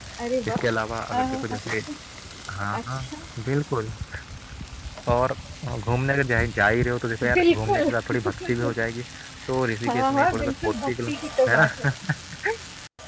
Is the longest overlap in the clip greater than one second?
Yes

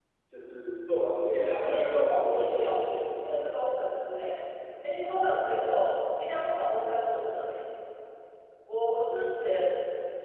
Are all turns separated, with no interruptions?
No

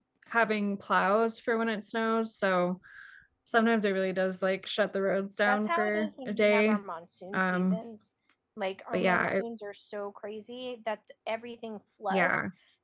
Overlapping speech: Yes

